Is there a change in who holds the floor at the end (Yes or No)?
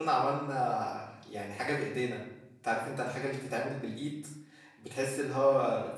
Yes